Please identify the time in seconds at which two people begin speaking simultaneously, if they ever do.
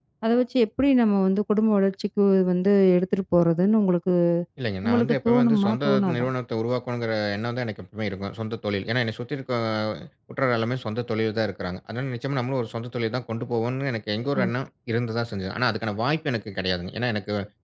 4.8 s

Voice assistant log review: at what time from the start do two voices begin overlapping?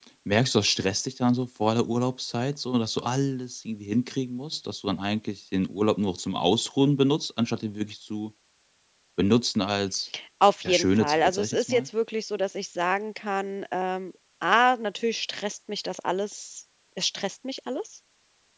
10.7 s

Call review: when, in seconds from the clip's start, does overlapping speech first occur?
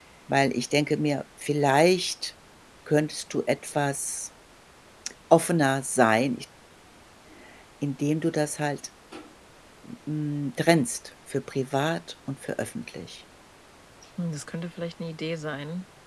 none

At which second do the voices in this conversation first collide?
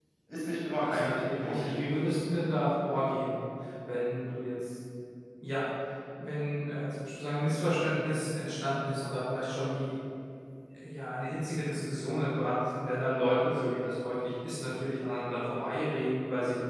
0.8 s

